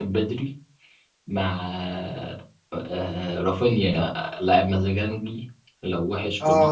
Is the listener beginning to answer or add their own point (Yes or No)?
Yes